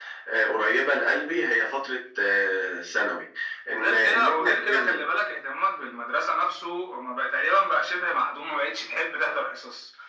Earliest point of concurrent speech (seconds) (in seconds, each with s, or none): 3.7 s